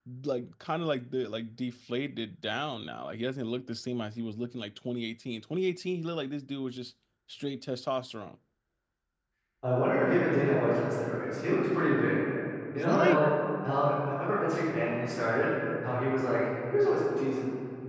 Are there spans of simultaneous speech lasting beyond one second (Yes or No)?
No